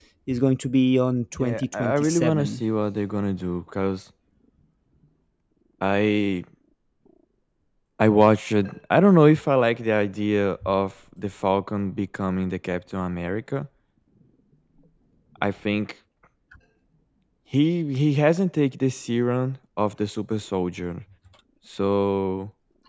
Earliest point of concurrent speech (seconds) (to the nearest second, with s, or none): 1 s